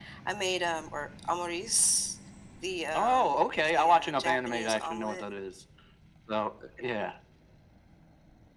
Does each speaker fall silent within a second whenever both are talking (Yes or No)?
No